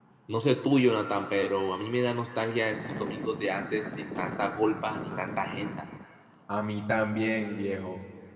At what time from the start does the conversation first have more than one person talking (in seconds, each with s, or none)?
none